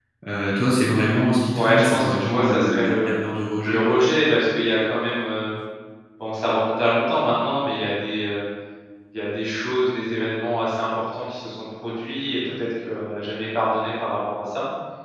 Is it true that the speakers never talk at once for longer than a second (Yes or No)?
No